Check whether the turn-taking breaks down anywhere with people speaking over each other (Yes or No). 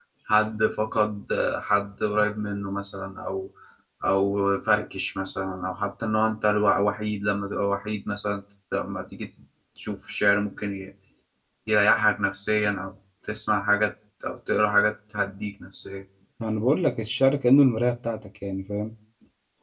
No